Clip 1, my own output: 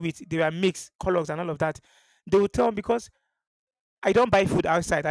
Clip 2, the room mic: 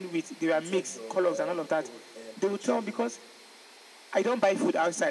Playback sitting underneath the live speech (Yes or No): No